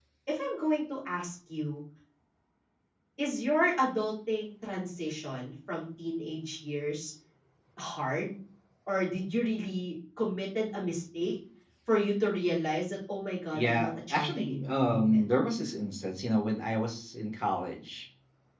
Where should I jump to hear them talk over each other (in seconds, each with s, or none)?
13.5 s